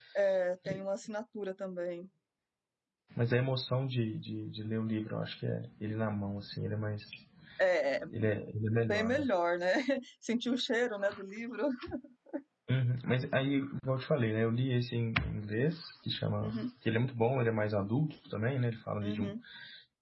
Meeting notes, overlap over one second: none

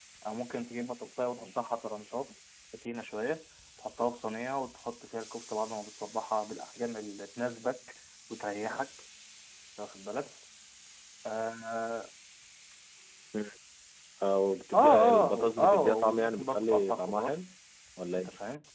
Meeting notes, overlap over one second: present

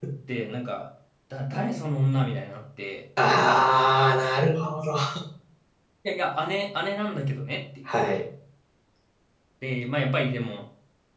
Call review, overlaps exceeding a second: none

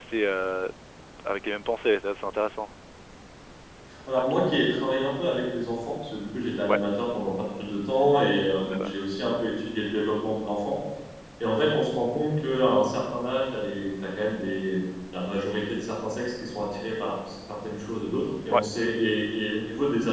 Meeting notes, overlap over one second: none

